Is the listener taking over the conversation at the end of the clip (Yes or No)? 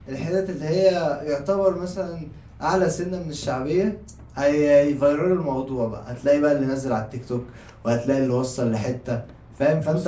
No